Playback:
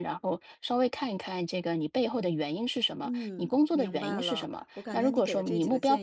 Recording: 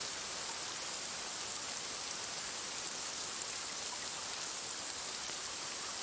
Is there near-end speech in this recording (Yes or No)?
No